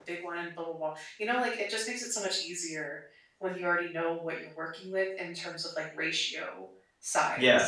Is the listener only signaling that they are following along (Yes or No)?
No